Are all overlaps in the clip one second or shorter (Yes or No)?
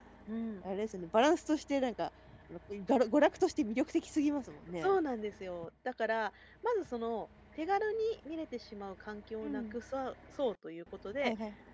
Yes